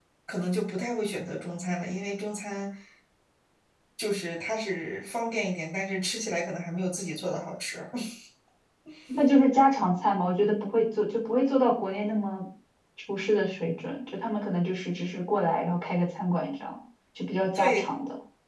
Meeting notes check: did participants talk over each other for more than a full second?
No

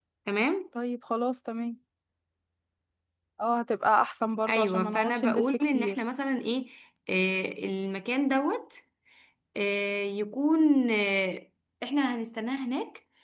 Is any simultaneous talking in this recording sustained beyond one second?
Yes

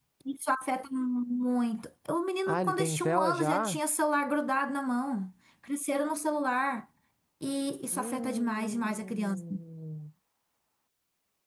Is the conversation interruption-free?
No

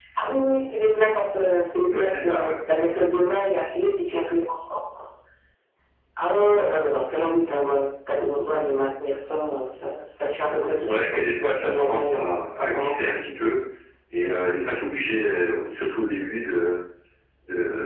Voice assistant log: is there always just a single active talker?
No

